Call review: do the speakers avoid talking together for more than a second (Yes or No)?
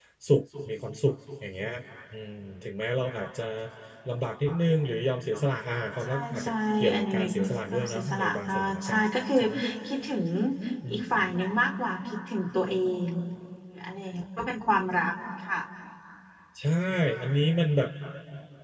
No